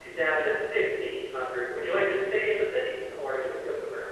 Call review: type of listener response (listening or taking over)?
taking over